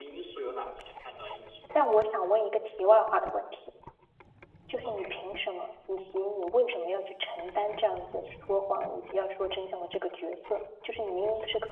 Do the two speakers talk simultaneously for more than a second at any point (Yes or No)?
No